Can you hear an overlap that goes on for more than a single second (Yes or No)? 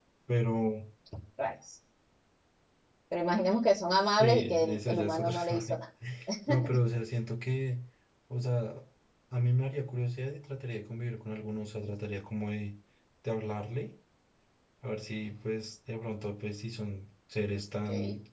Yes